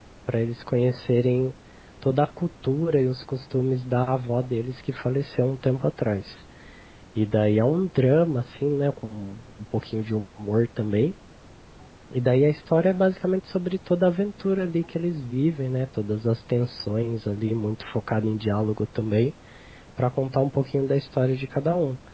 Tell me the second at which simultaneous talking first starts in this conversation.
none

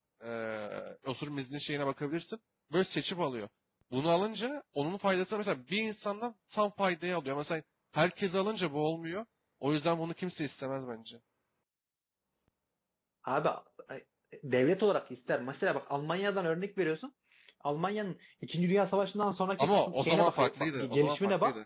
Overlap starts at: 20 s

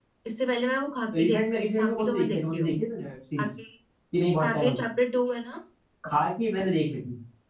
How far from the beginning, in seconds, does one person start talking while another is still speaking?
1 s

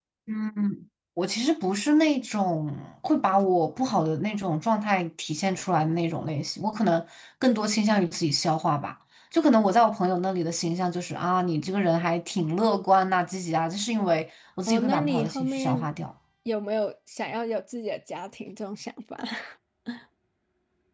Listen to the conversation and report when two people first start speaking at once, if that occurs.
15 s

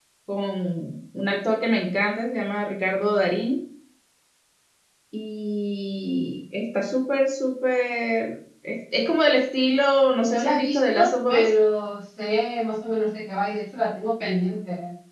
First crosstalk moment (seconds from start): 10 s

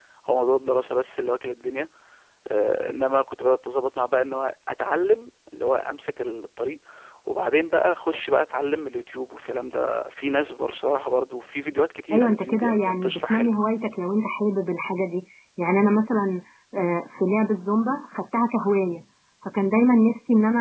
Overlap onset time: 12 s

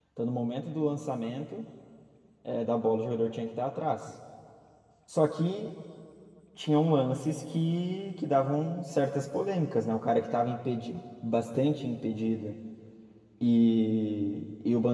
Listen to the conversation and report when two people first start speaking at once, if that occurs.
none

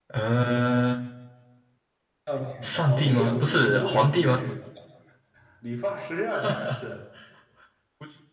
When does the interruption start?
3 s

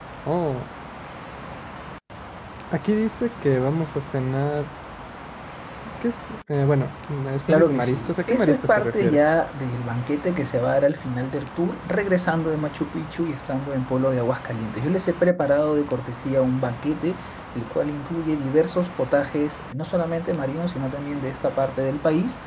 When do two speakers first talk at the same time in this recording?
7 s

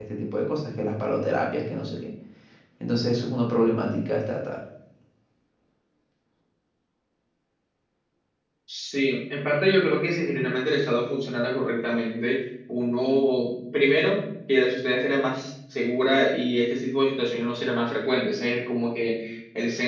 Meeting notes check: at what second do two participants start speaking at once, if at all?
none

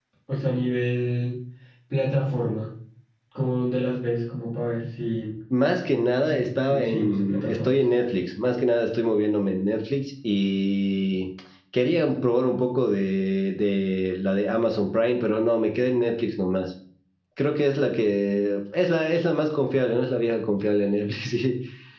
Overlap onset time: 6 s

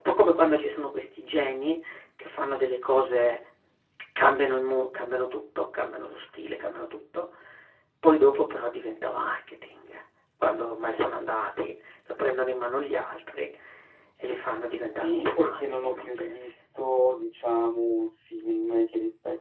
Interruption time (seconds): 15 s

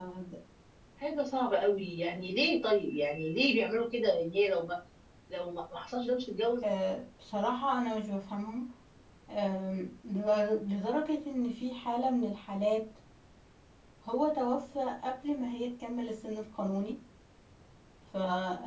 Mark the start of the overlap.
none

